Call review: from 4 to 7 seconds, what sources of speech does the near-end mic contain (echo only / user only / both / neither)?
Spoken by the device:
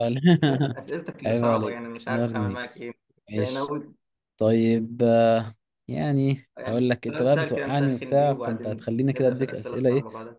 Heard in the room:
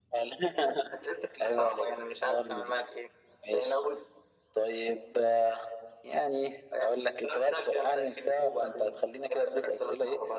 echo only